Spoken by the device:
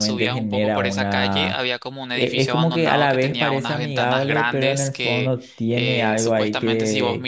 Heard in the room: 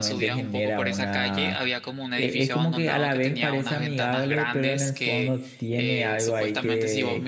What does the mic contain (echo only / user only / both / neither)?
echo only